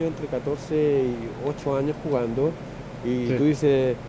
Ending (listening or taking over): listening